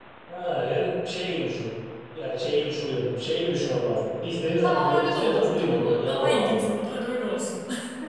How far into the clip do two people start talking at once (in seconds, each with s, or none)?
4.6 s